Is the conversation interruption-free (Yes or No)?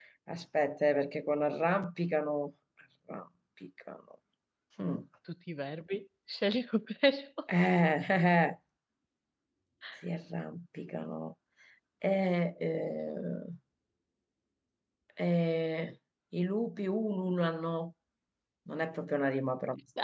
Yes